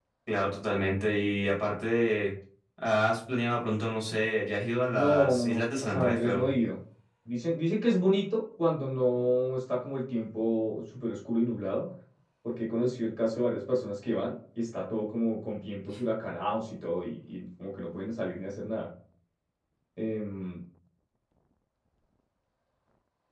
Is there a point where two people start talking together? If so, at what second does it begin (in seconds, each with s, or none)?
4.9 s